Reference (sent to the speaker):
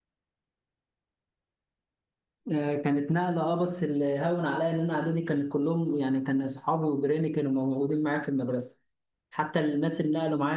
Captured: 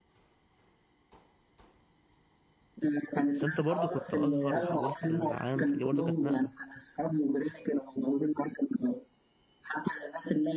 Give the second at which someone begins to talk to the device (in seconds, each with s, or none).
3.3 s